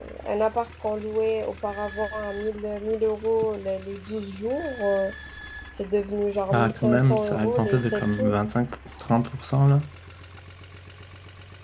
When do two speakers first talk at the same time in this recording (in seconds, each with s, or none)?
6.5 s